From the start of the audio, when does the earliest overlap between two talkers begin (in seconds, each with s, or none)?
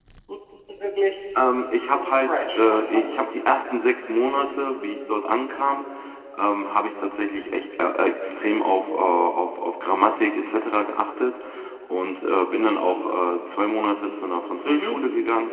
1.9 s